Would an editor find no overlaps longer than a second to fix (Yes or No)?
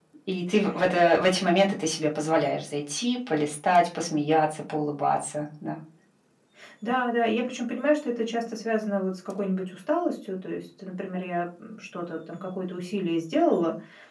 Yes